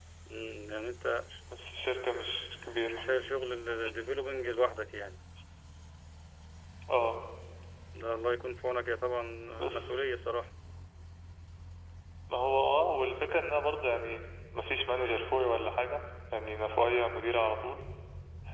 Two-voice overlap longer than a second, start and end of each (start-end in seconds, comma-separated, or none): none